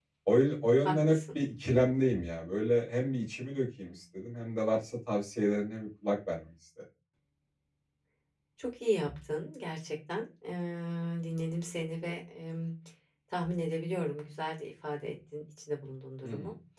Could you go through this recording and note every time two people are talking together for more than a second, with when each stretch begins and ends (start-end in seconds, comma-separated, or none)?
none